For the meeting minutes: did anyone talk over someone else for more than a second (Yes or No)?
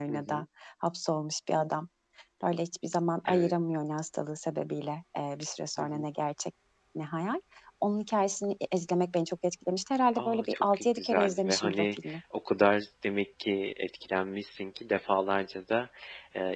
Yes